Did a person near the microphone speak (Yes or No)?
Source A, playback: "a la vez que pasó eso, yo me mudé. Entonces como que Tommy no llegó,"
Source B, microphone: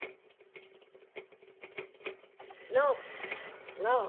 Yes